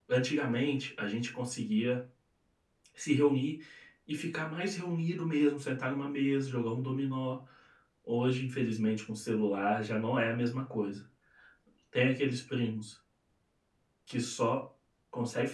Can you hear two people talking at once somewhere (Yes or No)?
No